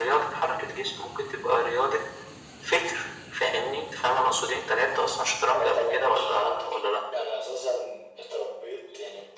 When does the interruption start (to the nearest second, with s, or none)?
6 s